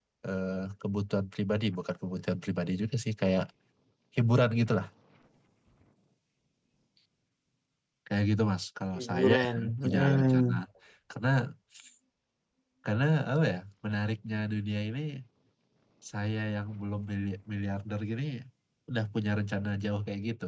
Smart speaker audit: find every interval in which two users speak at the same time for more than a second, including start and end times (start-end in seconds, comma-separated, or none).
9.0-10.5